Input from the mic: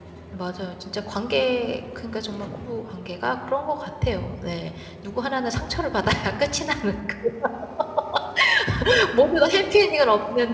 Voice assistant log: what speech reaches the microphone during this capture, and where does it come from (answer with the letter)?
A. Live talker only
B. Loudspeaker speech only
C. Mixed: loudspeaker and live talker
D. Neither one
A